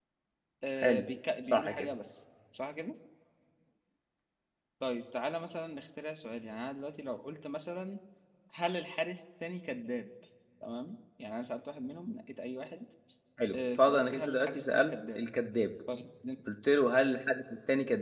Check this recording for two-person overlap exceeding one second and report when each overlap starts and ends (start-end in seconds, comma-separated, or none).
13.5-15.2